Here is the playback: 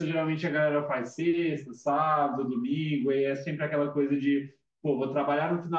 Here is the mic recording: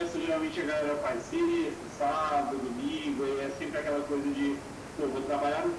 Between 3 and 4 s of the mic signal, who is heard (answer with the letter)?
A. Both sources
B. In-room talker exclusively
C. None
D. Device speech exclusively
D